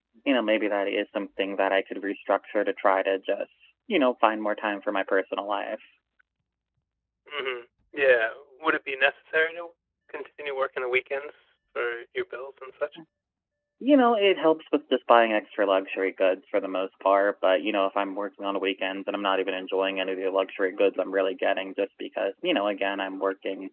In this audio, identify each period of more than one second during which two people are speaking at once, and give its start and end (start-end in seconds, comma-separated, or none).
none